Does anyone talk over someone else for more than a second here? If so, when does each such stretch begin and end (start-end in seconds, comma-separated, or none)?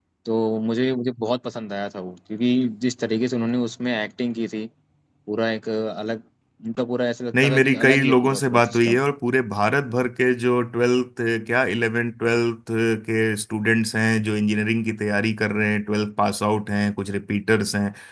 7.4-9.0